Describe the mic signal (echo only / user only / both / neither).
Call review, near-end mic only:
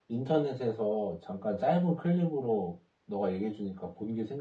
echo only